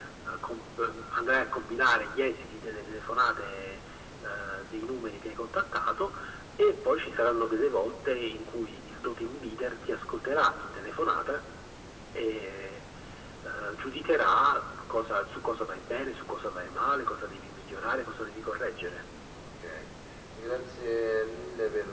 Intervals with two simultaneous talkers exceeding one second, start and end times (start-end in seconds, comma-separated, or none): none